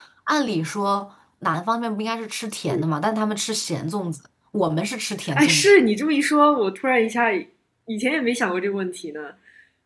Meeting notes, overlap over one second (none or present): none